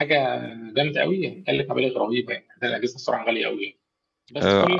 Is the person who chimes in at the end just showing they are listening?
Yes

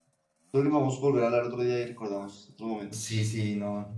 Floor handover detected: Yes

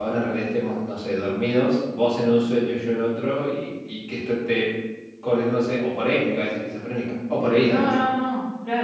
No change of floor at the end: No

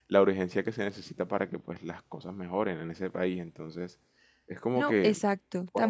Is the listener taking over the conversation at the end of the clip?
Yes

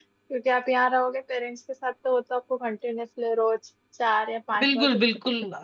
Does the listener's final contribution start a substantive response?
Yes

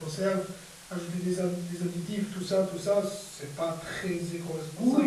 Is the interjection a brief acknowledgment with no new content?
No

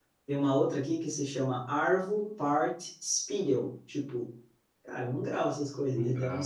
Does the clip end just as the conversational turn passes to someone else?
No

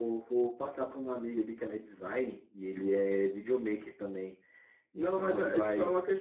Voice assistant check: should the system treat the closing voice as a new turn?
Yes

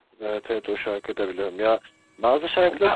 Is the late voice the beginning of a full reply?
Yes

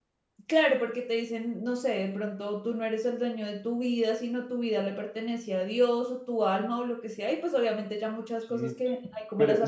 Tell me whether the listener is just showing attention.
No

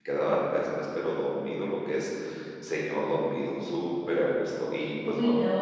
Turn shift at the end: Yes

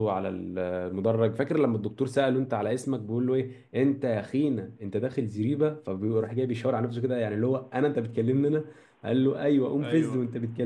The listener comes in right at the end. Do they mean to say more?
No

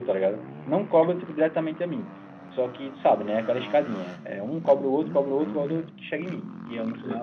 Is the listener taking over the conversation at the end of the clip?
Yes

